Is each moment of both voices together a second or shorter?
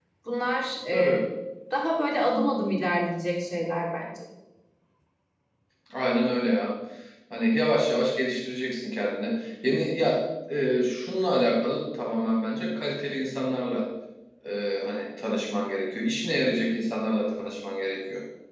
Yes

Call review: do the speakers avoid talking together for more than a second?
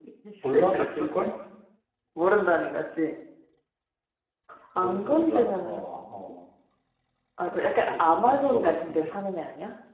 No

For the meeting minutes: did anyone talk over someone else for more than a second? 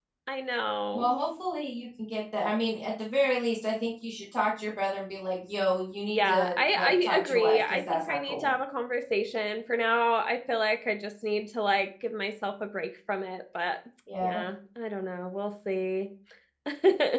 Yes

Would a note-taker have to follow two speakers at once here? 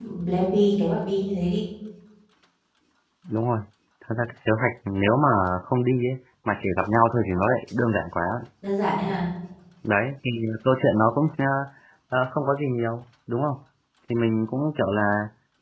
No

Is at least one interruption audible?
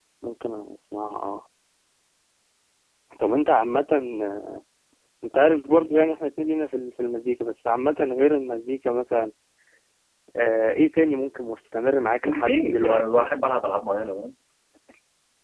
Yes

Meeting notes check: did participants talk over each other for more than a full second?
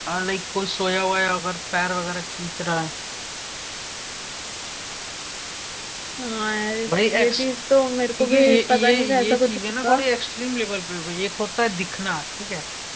Yes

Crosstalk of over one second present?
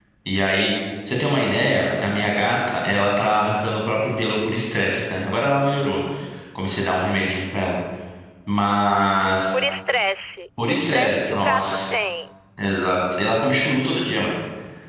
Yes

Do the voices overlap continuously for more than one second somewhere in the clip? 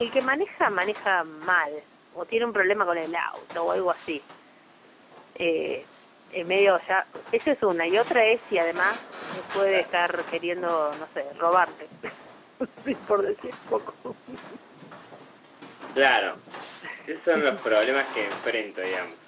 No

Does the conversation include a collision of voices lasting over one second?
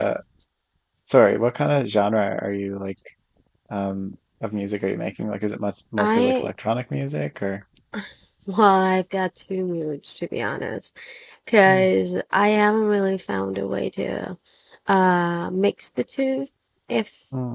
No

